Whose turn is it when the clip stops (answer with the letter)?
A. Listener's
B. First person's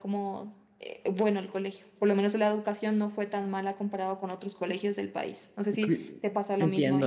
A